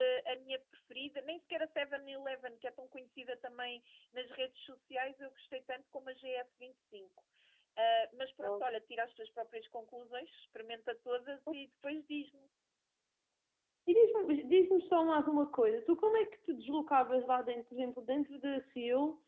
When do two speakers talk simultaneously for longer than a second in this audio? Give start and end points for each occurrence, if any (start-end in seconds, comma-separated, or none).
none